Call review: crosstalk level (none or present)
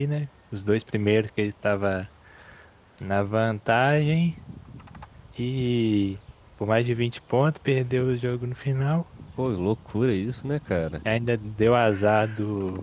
none